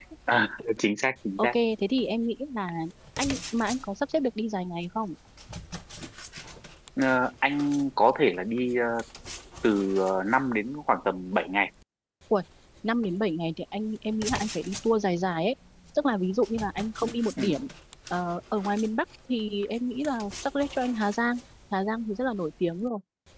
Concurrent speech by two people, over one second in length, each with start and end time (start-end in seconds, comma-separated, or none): none